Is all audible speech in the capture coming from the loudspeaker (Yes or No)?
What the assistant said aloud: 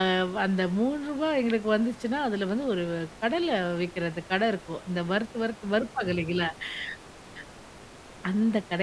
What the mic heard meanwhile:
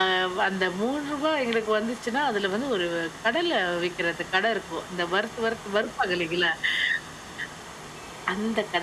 Yes